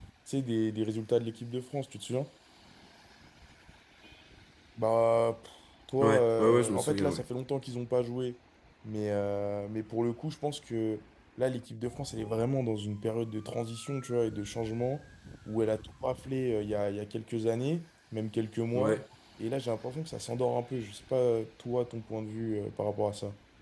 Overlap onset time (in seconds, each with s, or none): 6.0 s